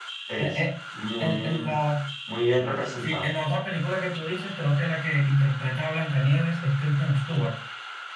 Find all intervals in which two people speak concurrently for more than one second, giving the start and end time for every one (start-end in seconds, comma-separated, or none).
none